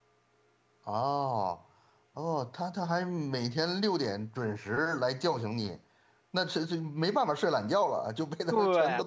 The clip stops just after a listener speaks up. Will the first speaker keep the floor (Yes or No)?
No